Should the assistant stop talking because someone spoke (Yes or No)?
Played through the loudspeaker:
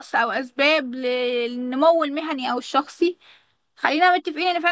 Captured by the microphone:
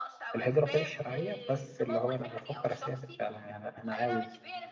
Yes